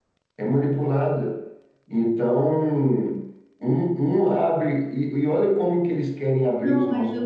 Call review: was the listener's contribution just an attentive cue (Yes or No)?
No